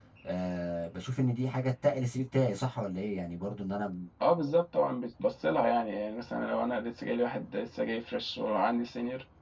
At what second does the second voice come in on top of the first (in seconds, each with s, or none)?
none